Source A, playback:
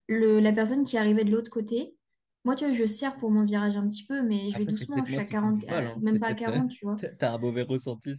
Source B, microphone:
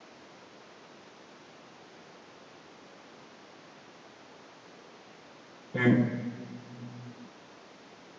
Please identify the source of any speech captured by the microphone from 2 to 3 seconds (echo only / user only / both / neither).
neither